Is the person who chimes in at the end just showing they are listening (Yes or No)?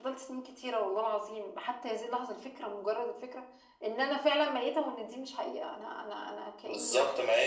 No